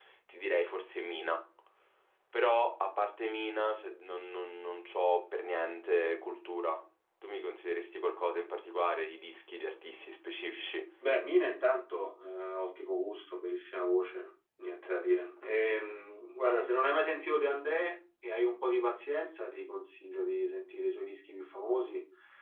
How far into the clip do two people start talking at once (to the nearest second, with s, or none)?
none